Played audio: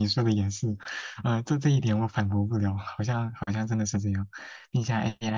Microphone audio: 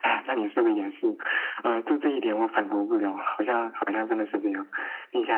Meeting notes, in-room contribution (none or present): none